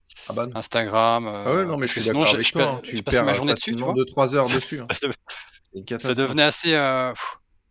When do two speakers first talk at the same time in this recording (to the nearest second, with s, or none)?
1 s